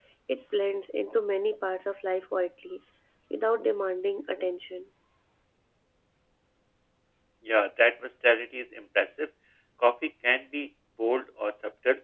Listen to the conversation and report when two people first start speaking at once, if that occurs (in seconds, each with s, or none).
none